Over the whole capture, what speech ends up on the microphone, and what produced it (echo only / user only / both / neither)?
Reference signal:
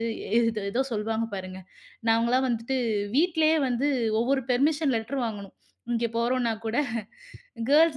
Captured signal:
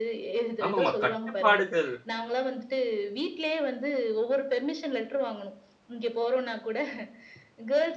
both